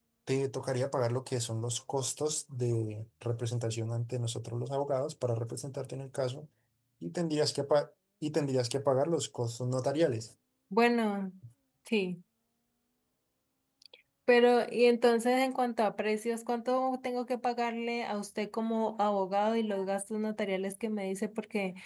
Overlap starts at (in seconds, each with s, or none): none